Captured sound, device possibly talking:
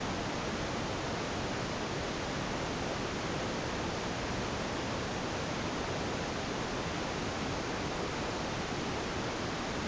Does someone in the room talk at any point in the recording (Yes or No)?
No